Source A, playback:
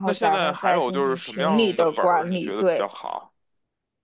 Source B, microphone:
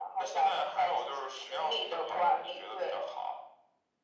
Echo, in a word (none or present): present